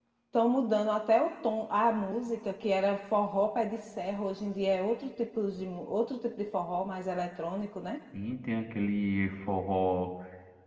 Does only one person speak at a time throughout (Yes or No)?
Yes